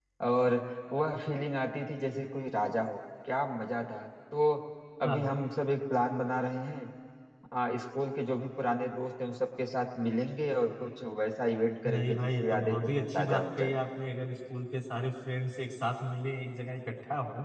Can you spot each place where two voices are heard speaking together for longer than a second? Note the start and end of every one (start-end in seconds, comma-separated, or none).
11.9-13.8